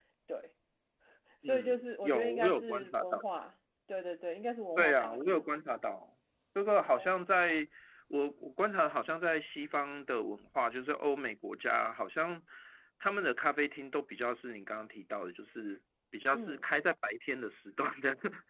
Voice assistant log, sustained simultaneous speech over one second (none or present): present